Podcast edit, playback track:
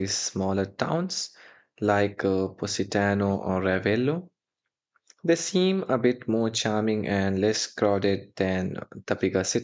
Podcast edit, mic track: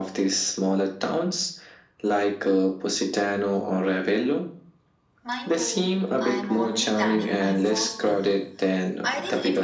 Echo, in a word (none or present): present